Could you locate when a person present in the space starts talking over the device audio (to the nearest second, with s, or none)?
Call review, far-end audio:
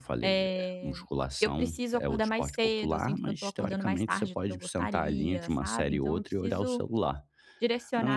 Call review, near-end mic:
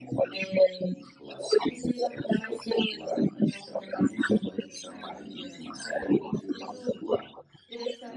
none